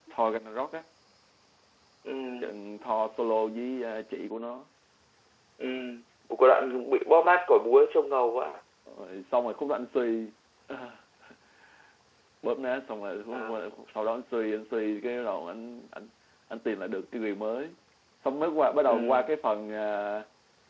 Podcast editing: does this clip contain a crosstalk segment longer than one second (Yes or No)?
No